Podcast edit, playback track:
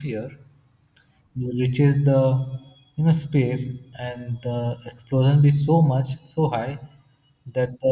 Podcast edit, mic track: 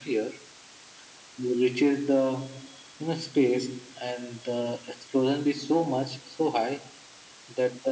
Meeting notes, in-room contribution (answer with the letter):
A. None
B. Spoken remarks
A